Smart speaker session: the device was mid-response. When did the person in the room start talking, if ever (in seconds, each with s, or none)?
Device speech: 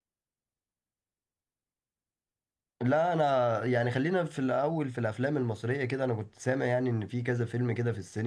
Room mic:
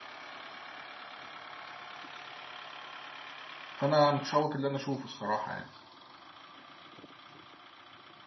3.8 s